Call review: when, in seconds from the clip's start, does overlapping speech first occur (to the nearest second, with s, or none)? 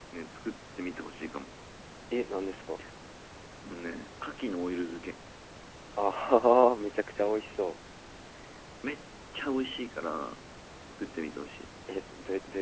none